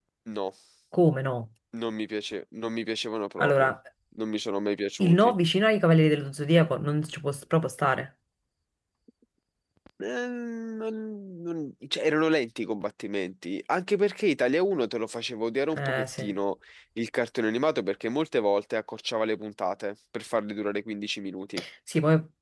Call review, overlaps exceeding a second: none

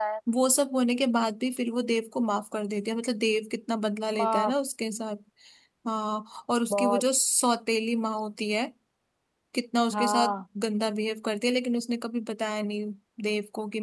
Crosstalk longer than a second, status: none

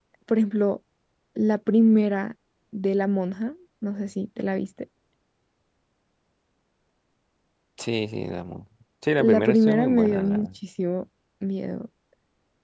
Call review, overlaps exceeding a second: present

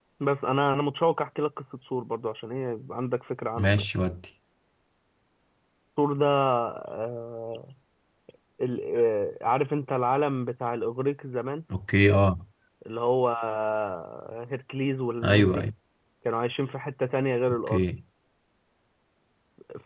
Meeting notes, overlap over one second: none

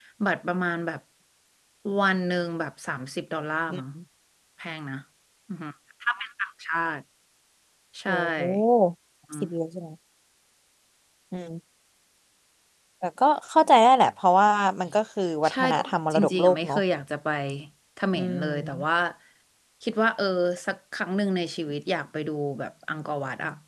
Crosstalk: present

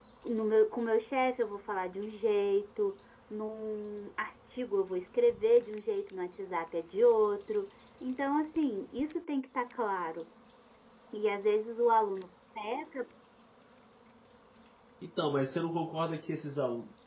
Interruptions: none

